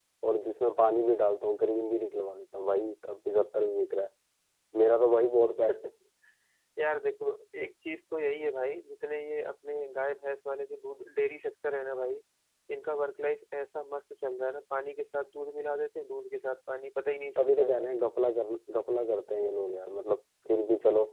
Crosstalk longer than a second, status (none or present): none